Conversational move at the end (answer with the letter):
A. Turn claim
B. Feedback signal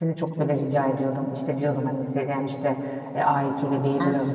B